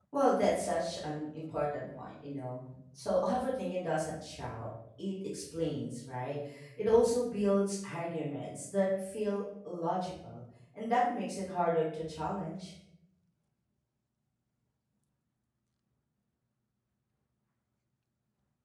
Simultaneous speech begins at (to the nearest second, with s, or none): none